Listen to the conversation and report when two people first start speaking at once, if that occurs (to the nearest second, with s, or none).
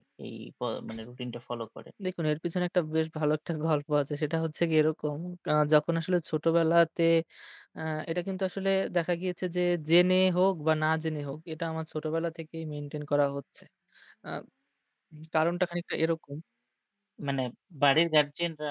none